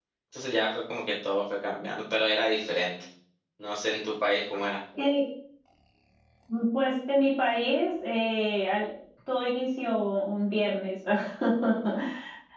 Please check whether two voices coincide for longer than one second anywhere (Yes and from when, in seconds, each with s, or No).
No